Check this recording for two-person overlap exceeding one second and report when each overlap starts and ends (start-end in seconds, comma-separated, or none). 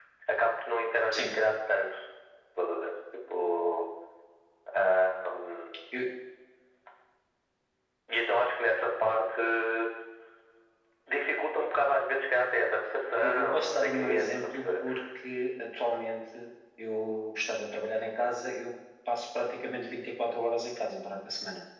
13.2-14.7